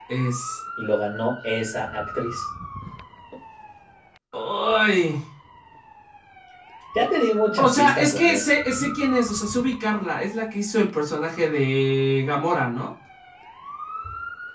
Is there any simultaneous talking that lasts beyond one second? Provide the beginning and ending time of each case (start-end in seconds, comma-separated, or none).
7.5-8.9